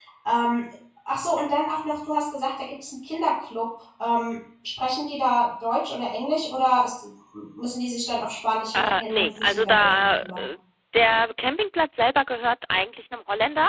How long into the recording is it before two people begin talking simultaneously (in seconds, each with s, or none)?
8.7 s